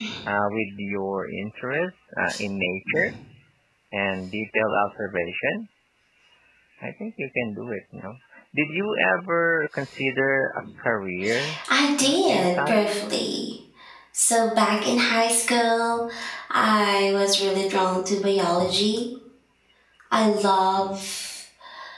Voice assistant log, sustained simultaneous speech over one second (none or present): present